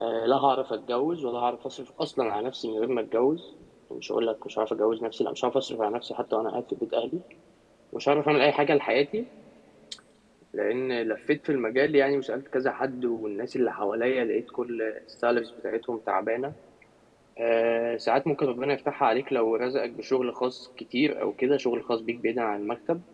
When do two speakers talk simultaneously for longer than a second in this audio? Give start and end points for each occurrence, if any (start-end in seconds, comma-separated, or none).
none